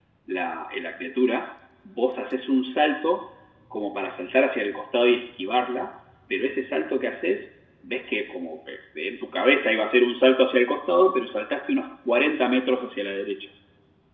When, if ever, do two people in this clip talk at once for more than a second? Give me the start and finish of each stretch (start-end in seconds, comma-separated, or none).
none